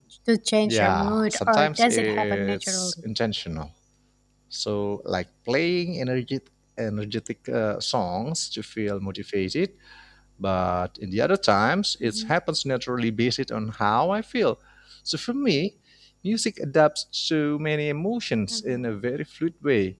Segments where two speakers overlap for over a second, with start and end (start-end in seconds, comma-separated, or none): 0.7-2.9